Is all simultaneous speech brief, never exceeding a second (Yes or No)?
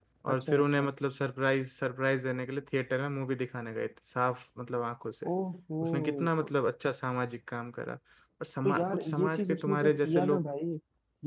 No